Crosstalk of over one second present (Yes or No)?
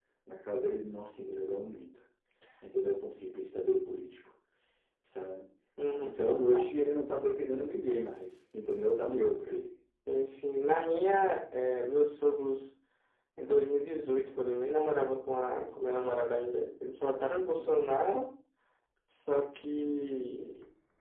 No